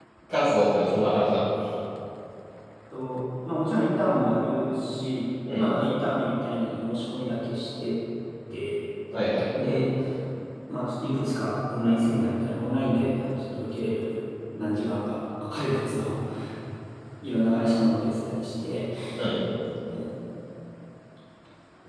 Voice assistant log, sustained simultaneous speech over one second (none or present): none